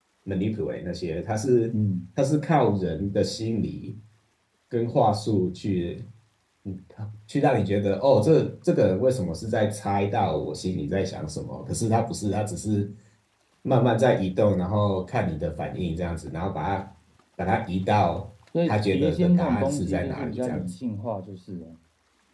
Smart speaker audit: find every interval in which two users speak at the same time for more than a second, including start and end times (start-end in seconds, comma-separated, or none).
18.6-20.7